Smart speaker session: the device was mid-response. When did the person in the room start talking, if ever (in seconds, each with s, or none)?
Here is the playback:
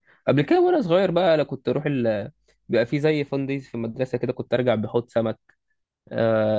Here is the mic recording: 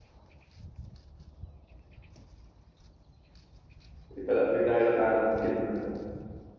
4.2 s